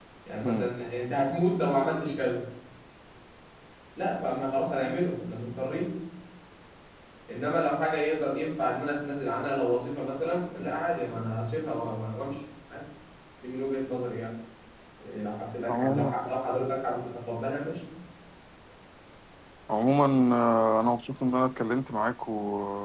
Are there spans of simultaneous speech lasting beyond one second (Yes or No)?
No